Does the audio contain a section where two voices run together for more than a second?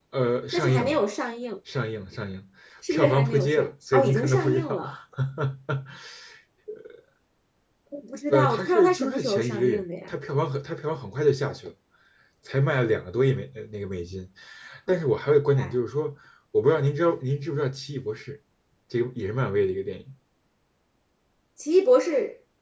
Yes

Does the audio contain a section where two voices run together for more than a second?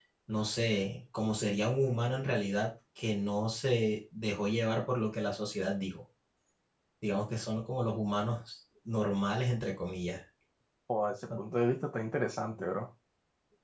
No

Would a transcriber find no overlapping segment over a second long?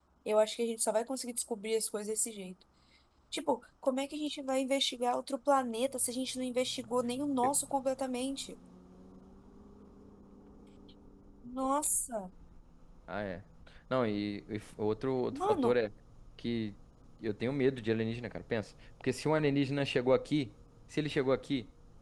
Yes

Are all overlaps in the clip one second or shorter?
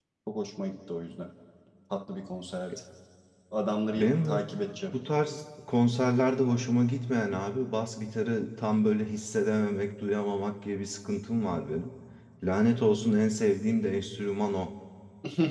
Yes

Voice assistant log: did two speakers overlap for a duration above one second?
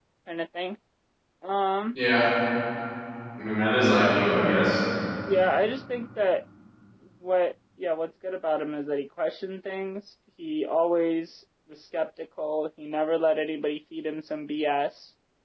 No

